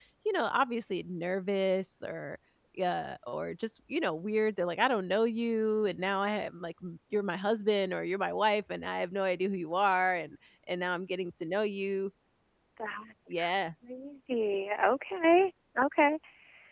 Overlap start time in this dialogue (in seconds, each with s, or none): none